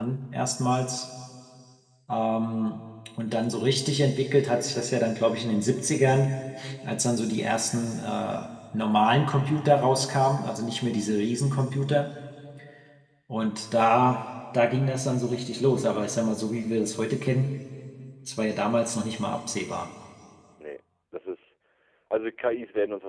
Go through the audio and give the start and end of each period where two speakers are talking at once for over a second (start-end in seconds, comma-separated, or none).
none